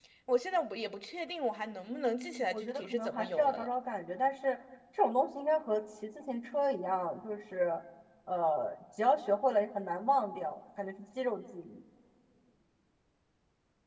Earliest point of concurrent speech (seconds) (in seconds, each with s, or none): 1.9 s